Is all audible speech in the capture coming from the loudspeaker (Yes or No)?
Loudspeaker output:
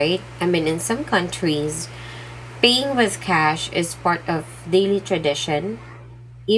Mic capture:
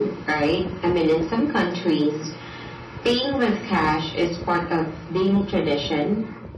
Yes